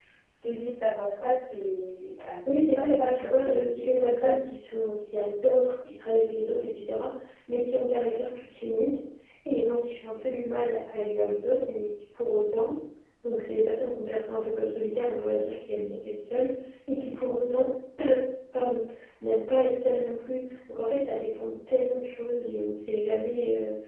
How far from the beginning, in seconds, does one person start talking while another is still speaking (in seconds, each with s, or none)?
2.5 s